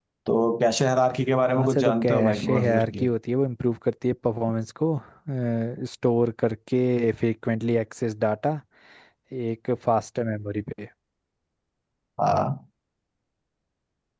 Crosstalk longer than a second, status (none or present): present